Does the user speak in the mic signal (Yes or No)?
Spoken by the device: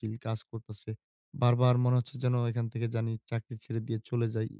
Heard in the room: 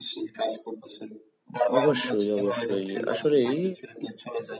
Yes